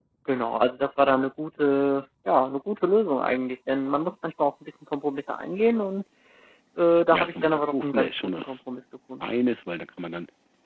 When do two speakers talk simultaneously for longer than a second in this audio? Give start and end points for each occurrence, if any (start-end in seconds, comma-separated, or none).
7.1-8.6